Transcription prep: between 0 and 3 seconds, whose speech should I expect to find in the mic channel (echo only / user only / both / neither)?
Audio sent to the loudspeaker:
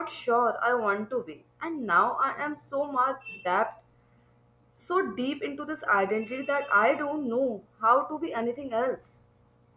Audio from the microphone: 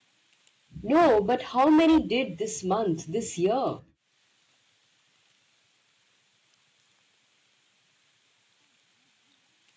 user only